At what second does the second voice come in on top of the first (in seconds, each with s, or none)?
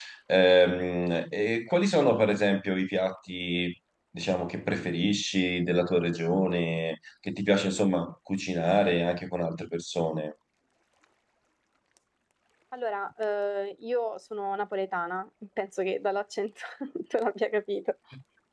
none